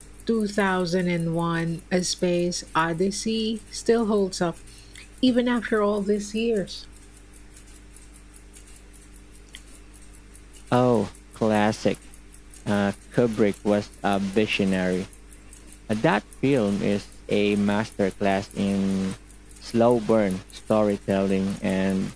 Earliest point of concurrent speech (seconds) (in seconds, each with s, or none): none